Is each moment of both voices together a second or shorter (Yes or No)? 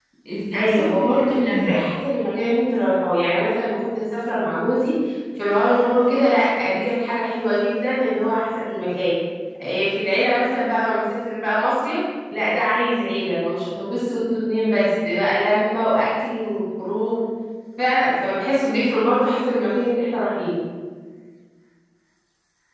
No